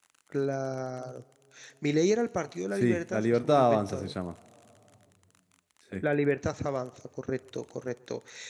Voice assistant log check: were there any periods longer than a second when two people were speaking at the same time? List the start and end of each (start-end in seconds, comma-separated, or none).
2.7-4.1